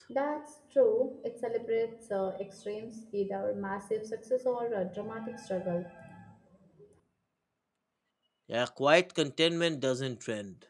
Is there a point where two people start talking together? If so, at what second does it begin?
none

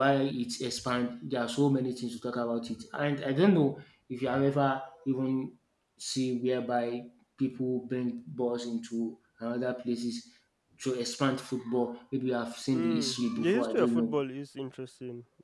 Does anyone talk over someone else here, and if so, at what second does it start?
12.7 s

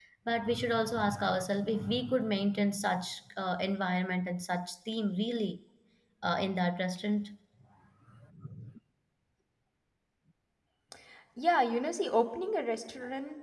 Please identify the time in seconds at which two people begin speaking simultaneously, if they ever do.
none

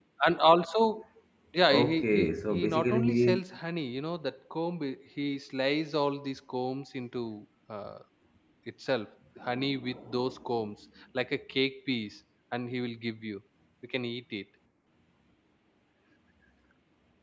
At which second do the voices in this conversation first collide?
1.7 s

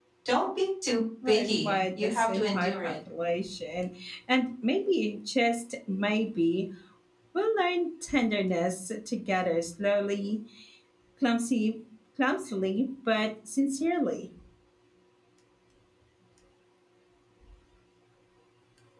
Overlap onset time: 1.3 s

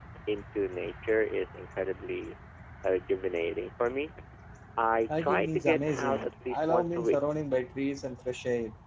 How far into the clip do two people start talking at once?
5.2 s

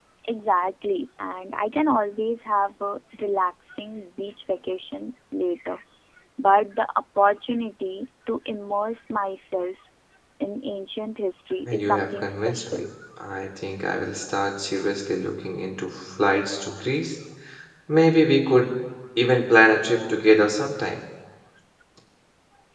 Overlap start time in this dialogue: 11.7 s

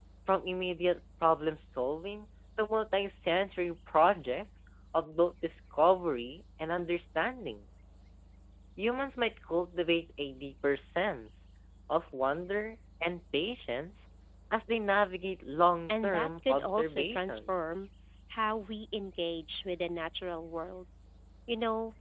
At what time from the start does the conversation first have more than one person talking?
15.9 s

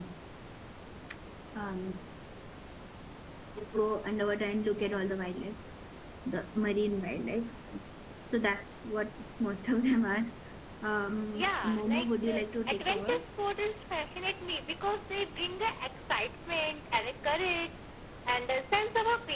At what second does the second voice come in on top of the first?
11.3 s

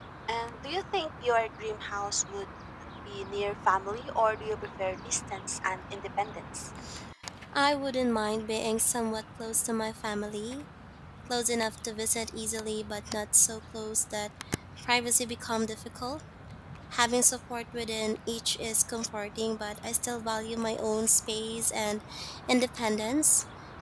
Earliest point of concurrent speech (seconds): none

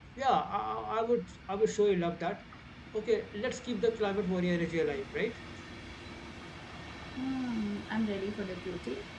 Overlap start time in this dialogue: none

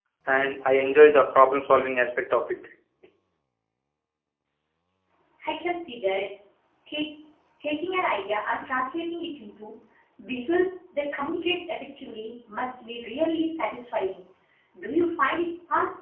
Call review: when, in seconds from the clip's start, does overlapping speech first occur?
none

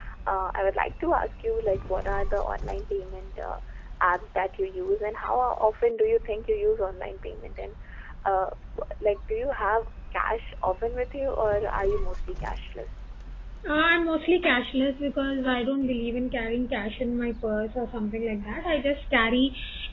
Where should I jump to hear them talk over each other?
none

